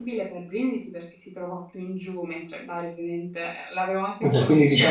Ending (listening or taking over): taking over